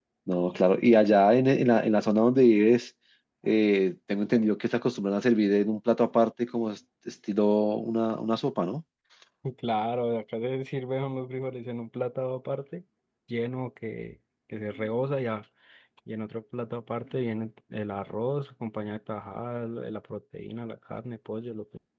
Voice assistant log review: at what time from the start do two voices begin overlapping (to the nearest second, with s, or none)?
none